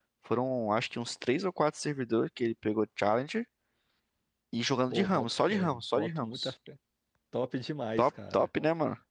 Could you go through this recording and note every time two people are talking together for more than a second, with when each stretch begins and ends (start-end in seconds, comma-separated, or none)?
4.9-6.5